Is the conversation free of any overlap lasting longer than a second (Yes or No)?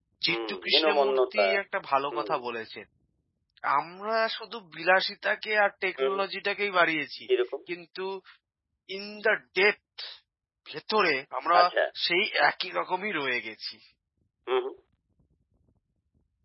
No